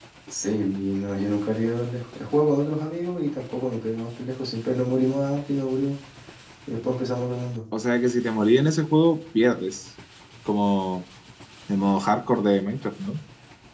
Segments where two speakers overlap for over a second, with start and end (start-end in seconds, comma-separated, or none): none